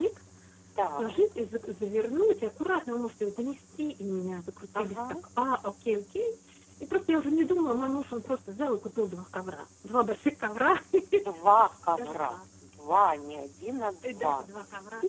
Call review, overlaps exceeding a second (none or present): none